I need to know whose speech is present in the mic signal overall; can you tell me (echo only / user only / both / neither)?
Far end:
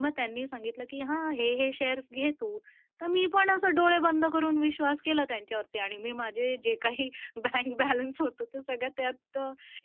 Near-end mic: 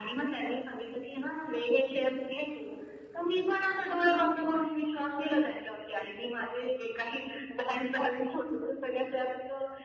echo only